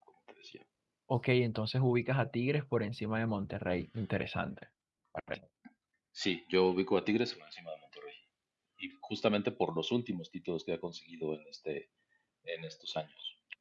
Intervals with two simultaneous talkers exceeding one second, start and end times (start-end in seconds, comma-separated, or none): none